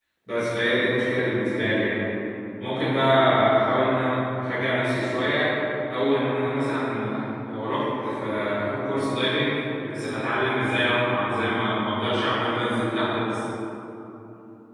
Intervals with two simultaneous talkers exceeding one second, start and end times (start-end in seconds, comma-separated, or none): none